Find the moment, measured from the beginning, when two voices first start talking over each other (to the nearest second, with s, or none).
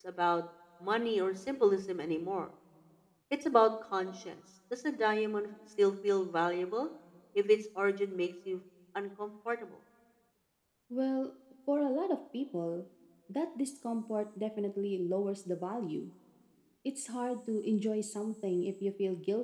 none